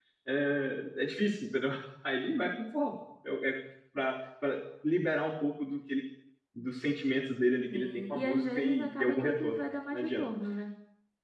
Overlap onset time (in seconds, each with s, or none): 7.7 s